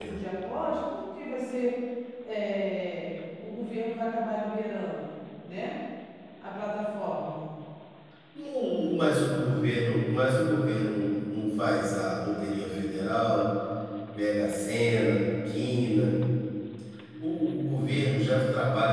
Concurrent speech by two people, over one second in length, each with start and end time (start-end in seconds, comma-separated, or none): none